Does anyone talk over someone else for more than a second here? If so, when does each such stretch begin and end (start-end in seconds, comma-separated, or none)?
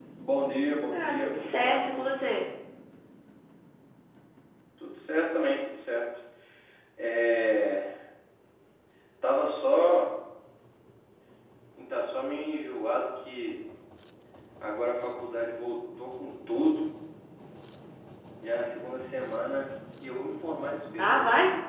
0.9-2.1